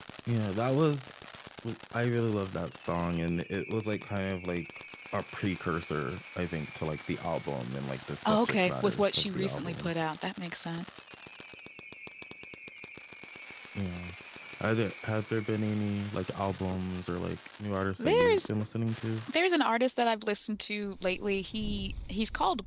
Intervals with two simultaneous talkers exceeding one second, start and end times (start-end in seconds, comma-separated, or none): 8.2-9.9